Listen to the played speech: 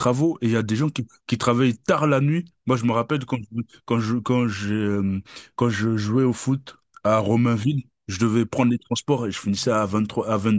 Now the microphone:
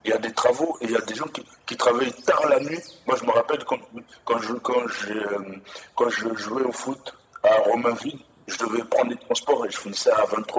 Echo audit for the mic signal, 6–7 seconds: echo only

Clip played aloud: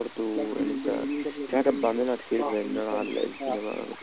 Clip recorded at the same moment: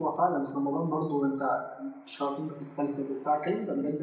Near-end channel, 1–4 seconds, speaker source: user only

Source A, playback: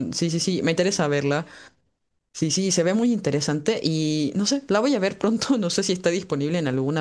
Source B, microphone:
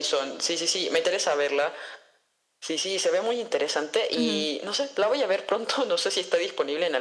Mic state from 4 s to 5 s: both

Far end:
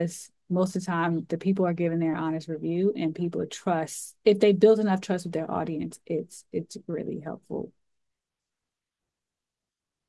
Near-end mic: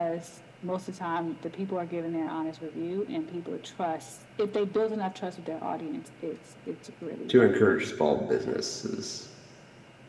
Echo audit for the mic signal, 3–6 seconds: echo only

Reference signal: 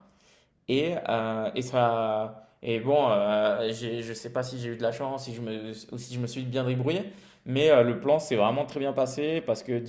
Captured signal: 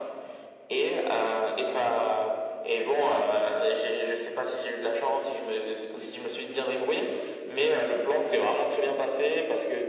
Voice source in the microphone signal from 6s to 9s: echo only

